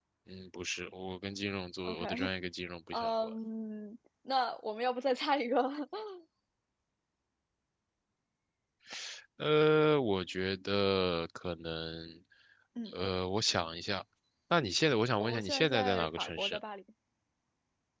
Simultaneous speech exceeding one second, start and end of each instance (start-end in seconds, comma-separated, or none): 15.2-16.6